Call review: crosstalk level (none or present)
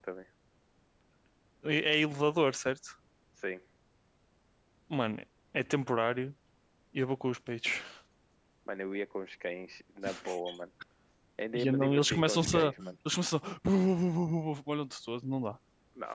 present